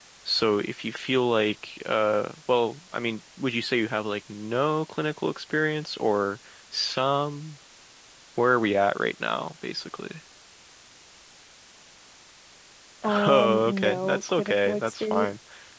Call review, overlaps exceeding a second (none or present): present